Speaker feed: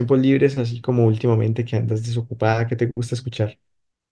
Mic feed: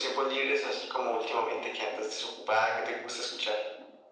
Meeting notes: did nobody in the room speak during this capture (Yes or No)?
Yes